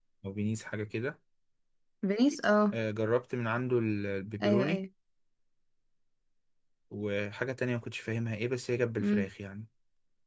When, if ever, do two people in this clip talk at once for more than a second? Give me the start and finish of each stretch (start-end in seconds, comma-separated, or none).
none